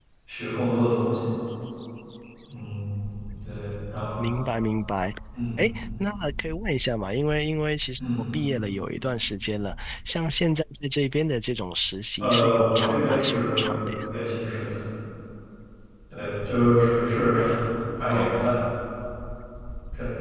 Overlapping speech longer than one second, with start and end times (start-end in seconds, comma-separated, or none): 12.2-13.8